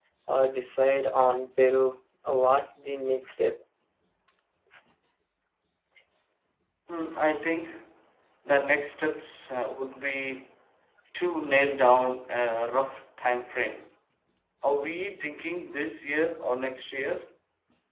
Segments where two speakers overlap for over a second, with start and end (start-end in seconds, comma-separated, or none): none